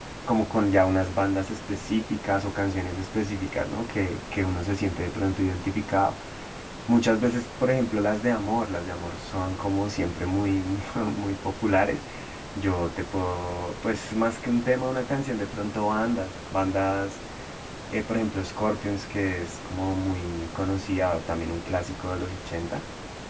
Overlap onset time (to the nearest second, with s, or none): none